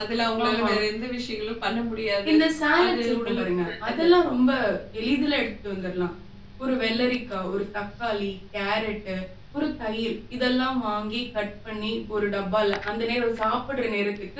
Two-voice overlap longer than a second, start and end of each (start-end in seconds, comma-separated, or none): 2.8-4.1